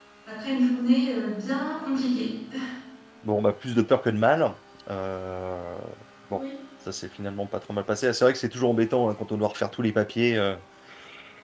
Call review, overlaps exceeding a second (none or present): none